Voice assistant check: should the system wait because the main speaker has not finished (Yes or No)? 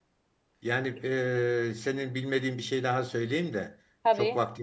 Yes